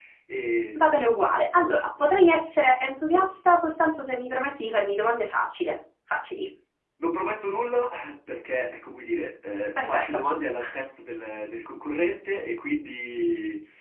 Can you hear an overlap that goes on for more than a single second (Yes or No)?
No